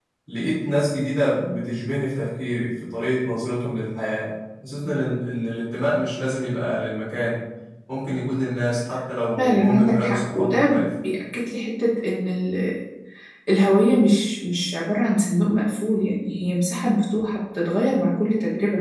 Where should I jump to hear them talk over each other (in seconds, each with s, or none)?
9.4 s